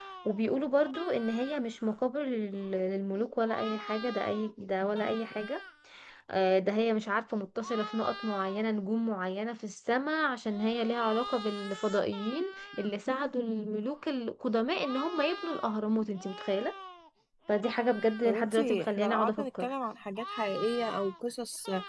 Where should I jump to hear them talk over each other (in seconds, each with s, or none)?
18.2 s